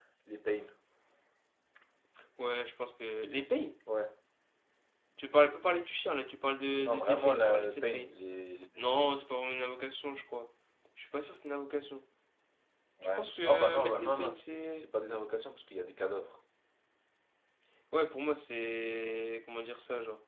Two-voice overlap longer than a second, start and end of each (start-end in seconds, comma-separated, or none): 6.9-8.1, 13.0-14.8